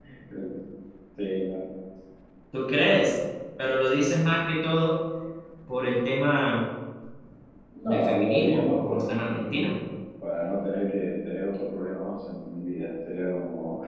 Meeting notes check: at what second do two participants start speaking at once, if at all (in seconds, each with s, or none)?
7.8 s